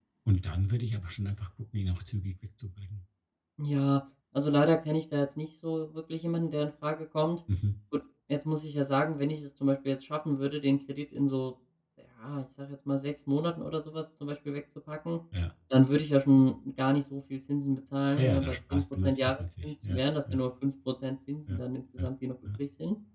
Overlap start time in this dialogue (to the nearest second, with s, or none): 18 s